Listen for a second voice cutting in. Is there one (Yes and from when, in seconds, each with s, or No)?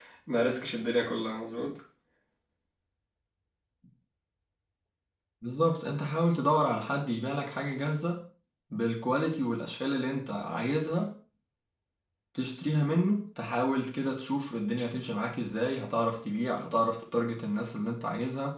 No